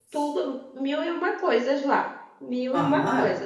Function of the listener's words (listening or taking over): taking over